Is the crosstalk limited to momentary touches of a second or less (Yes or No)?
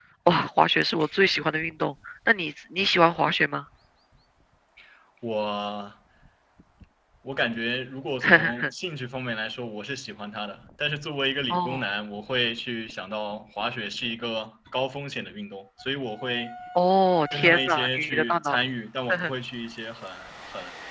No